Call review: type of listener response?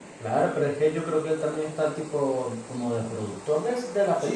taking over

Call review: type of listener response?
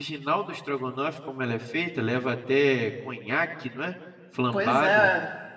taking over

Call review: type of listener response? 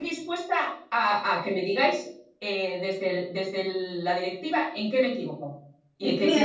taking over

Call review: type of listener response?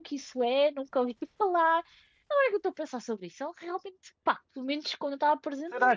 taking over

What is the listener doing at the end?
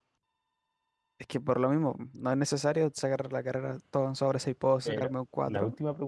taking over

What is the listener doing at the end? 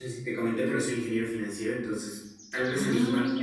listening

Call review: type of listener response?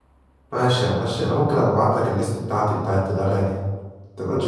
taking over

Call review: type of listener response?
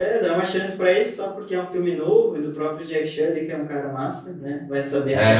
taking over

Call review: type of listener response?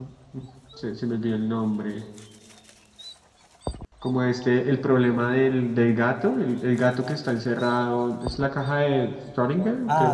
taking over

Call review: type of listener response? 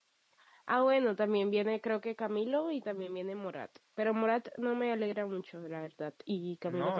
taking over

